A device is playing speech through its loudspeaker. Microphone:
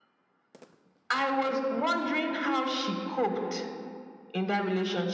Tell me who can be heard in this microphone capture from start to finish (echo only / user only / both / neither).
echo only